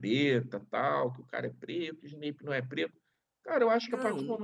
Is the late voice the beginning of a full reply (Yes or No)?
No